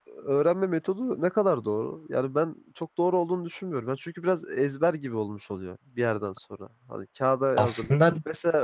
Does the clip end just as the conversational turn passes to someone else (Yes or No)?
No